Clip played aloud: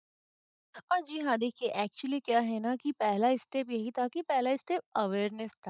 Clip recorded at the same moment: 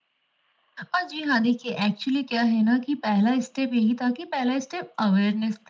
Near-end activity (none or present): none